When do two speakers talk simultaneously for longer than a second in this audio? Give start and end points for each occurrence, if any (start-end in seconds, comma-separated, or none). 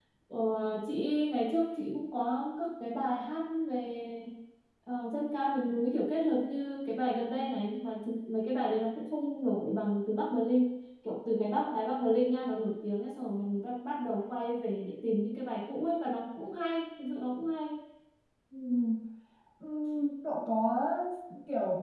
none